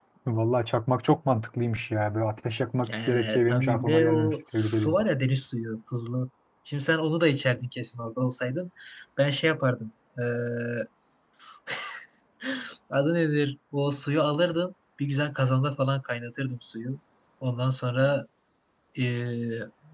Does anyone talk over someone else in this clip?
Yes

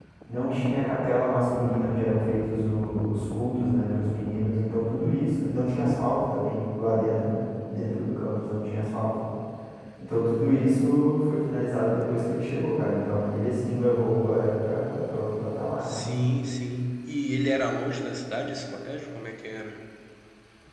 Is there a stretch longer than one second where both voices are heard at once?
No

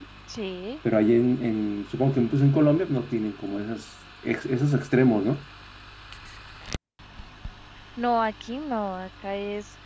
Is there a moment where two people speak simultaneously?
No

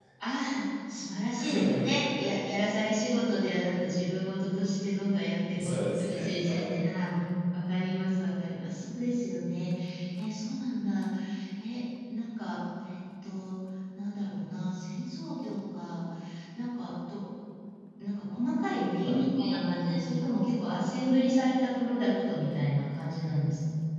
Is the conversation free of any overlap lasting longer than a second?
No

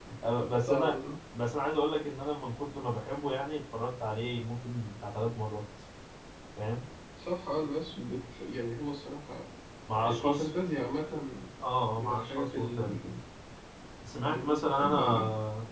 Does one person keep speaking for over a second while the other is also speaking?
Yes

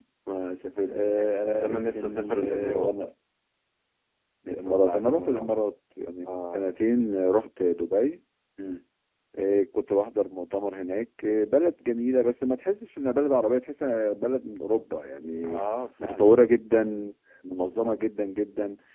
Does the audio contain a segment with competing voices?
Yes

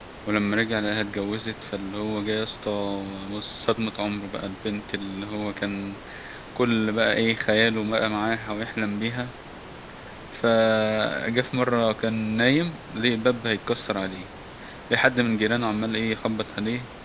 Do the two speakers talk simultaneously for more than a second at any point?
No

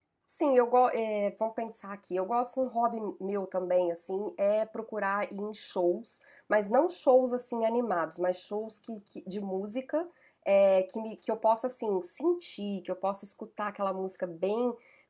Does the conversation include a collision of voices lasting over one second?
No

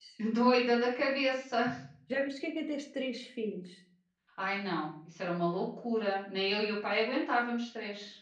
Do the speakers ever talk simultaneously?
No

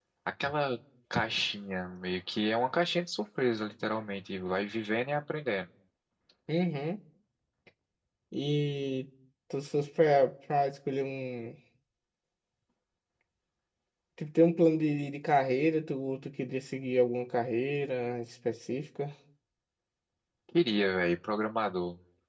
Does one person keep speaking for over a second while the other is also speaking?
No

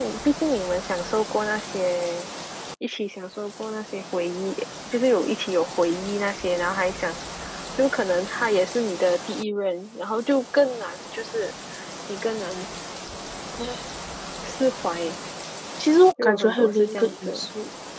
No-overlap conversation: No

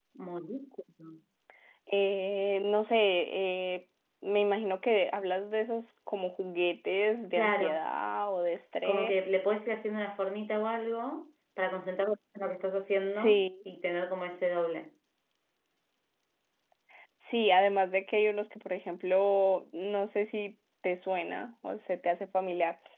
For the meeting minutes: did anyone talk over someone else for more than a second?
No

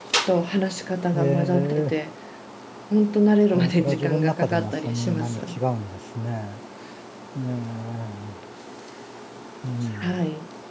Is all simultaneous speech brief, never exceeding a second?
No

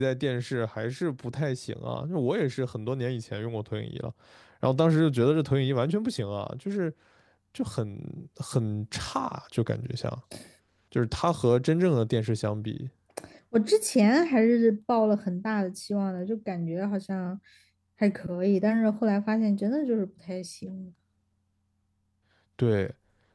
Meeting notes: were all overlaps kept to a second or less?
Yes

